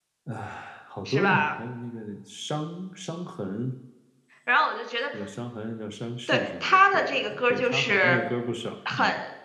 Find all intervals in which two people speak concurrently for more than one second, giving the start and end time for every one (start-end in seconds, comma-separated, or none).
6.3-8.2